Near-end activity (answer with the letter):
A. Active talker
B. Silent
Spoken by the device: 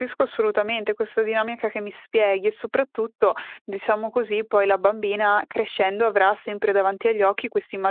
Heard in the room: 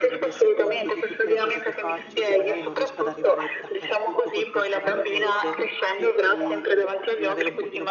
A